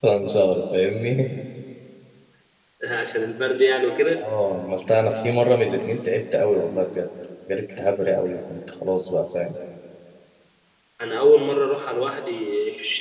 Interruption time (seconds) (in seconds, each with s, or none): none